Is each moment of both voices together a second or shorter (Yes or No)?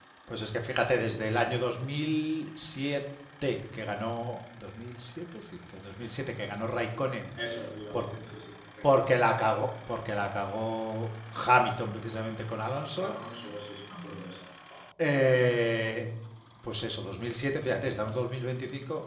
Yes